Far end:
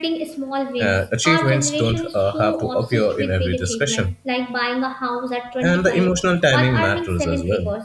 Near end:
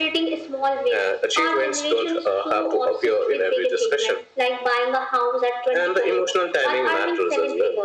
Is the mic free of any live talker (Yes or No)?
Yes